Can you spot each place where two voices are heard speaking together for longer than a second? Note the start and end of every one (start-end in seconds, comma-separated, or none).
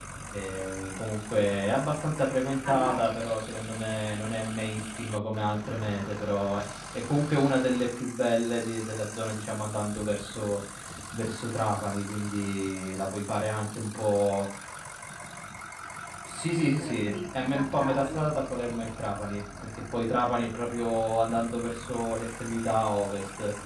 16.8-18.3